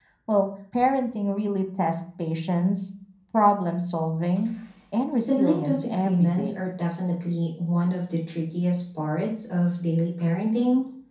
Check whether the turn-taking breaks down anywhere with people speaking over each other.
Yes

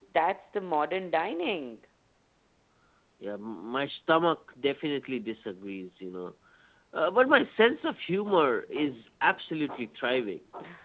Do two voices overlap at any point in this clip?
No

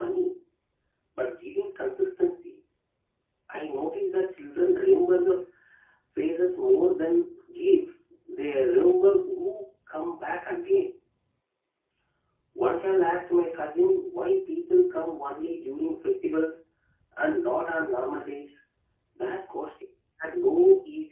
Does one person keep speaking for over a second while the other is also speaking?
No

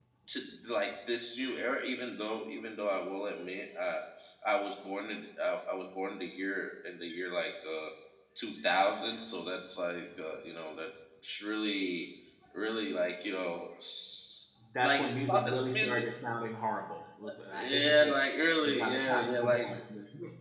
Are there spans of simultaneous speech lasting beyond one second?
Yes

